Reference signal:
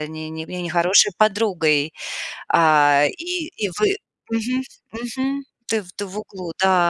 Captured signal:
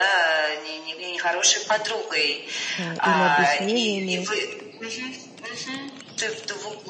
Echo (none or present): present